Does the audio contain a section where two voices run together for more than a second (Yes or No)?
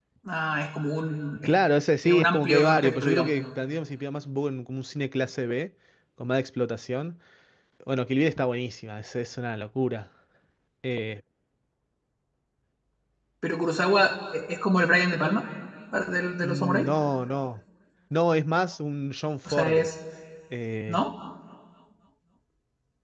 Yes